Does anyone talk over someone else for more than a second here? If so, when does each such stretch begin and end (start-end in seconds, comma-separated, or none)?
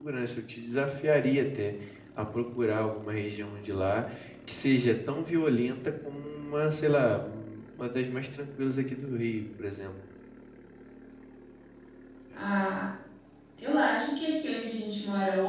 none